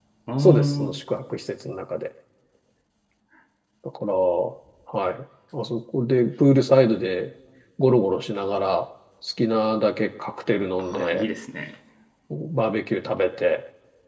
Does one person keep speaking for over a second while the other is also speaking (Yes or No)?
No